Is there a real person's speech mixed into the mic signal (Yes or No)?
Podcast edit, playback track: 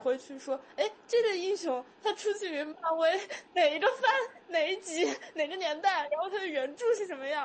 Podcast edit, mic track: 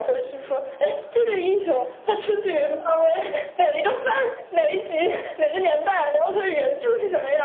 No